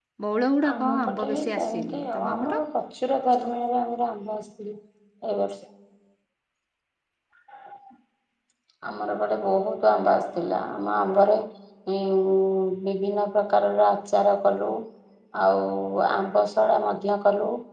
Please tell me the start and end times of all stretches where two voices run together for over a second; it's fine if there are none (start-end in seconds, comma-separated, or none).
0.8-2.6